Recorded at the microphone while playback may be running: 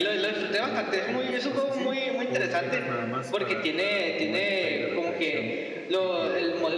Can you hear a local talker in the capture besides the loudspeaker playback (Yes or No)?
Yes